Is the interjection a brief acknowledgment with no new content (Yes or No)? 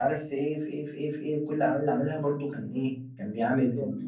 Yes